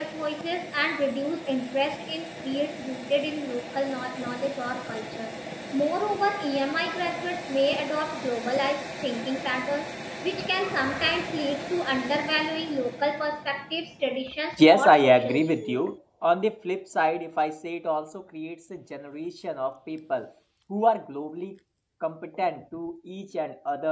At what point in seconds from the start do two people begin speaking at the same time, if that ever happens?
15 s

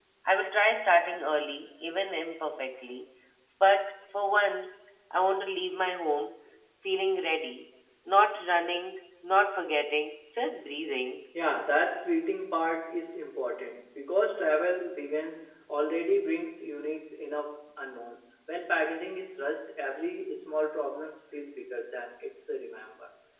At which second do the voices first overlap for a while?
none

